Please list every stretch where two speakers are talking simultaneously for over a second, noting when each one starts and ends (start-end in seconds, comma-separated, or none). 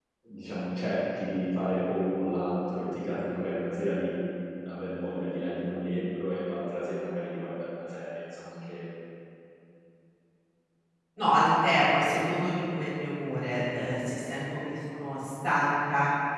none